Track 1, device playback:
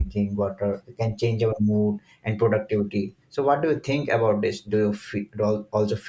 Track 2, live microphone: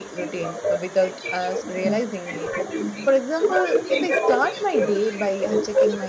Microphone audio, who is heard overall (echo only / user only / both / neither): both